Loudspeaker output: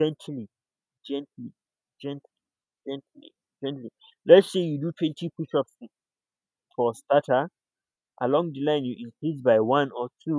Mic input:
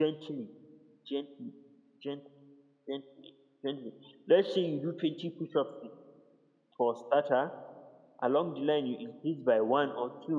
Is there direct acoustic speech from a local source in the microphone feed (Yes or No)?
No